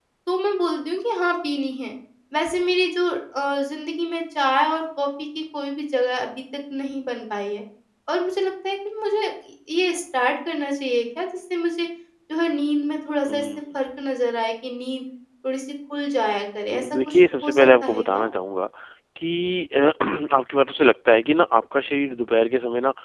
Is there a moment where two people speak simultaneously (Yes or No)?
Yes